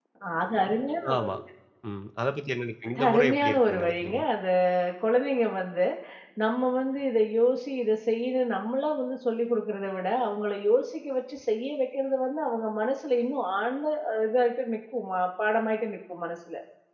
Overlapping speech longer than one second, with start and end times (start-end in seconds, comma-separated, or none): 3.0-4.2